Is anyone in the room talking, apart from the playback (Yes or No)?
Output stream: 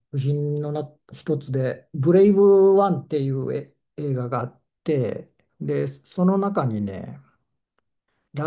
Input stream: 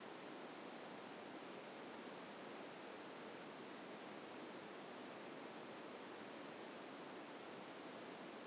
No